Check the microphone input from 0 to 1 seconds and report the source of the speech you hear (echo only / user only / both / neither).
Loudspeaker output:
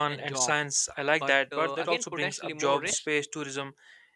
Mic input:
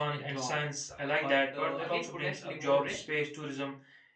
echo only